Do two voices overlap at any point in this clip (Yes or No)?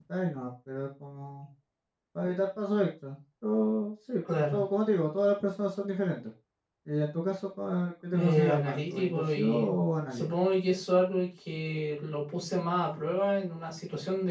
Yes